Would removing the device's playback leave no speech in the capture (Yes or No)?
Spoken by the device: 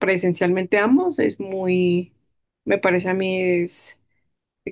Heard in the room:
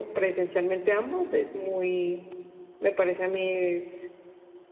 Yes